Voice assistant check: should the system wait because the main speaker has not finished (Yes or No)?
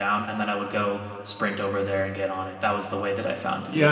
No